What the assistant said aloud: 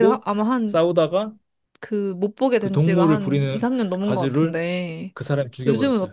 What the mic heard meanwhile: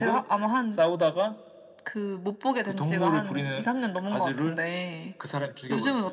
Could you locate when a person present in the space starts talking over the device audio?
none

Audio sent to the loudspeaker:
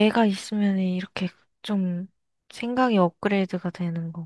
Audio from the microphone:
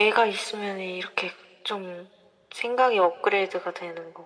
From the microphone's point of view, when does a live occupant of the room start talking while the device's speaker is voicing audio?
none

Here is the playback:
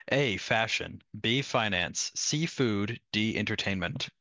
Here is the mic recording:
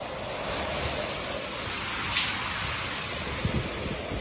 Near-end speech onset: none

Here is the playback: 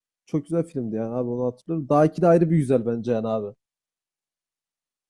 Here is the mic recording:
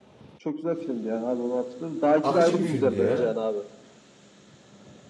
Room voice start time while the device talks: 2 s

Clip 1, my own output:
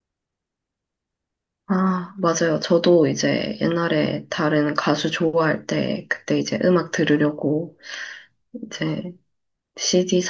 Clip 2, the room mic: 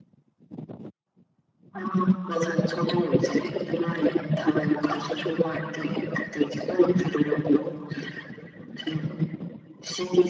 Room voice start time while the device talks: none

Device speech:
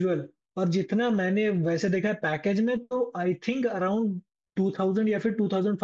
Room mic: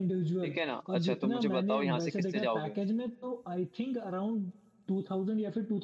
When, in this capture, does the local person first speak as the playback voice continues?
0 s

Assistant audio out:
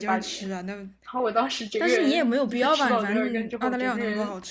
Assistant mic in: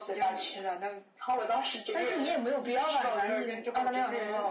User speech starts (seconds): none

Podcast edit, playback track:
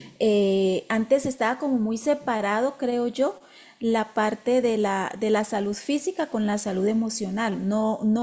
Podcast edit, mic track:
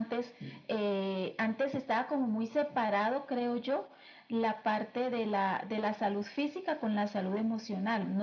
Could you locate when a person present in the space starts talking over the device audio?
none

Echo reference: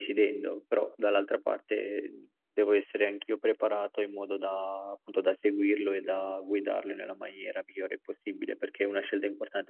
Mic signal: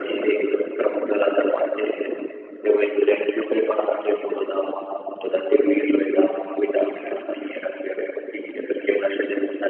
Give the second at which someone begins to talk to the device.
none

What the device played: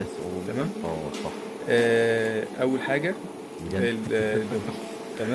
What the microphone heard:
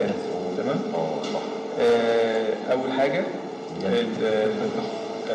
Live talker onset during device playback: none

